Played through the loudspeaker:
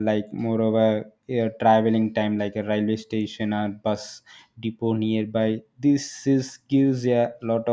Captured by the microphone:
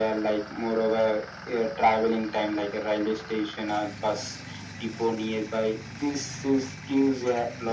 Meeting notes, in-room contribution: none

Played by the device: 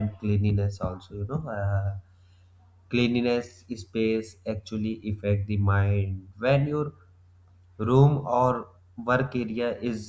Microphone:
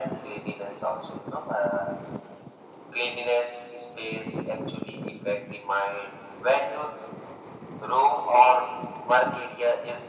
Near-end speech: none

